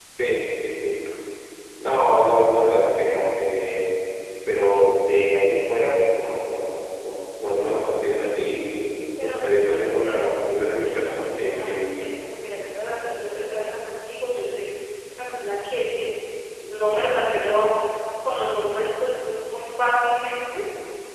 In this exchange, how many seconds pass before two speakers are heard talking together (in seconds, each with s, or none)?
9.2 s